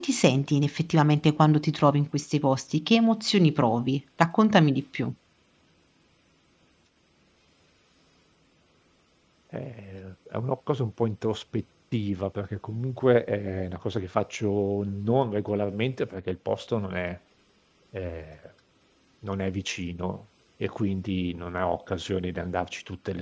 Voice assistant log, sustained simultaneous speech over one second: none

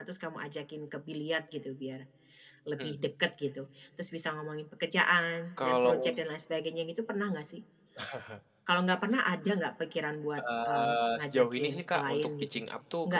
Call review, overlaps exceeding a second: present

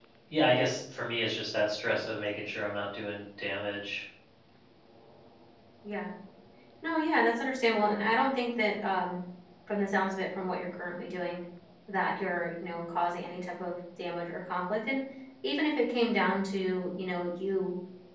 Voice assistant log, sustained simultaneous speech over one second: none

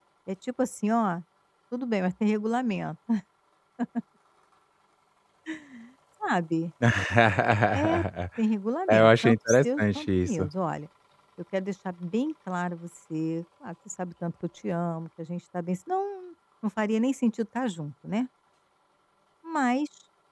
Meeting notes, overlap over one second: present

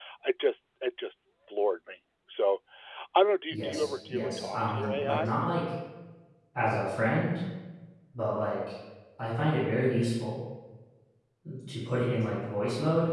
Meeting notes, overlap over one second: present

